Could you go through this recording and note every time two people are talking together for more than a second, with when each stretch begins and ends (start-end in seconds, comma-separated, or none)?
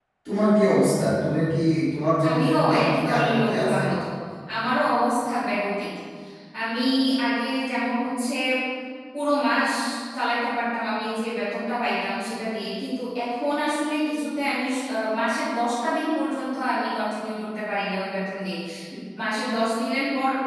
2.3-3.8